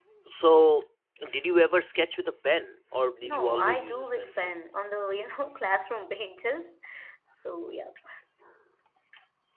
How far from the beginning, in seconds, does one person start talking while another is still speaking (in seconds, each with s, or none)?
3.2 s